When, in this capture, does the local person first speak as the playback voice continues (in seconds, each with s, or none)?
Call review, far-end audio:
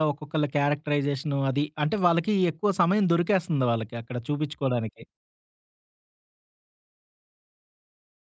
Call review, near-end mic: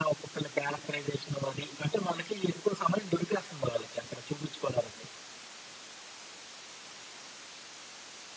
none